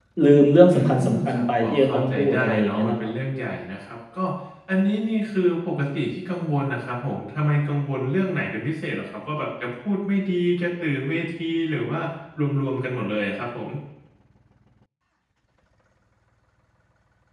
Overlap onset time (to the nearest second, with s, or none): 1 s